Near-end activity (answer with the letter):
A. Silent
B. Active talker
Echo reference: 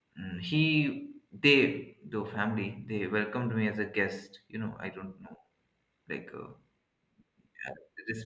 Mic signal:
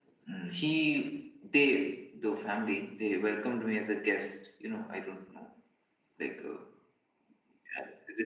A